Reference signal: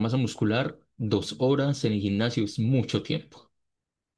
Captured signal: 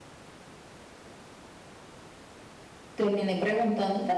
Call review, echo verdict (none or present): none